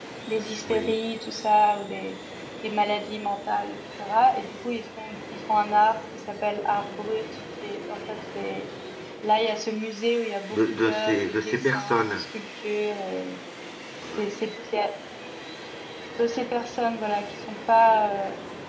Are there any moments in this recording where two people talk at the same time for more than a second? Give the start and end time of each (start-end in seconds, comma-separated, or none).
10.5-12.2